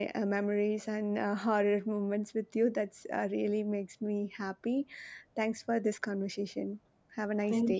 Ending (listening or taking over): taking over